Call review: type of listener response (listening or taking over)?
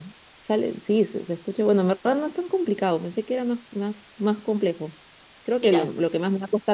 listening